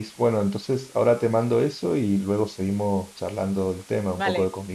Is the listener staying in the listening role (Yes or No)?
No